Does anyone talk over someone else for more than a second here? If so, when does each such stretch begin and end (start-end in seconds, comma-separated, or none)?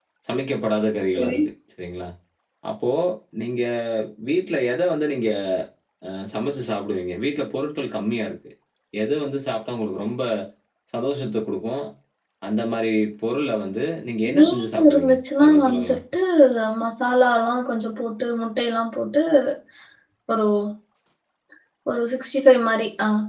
14.3-16.0